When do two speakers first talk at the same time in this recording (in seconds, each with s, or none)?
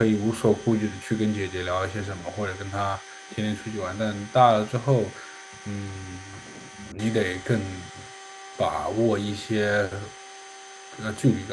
none